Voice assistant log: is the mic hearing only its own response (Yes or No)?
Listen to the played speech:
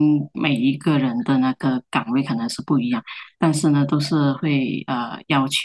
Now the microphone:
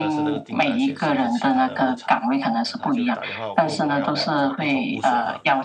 No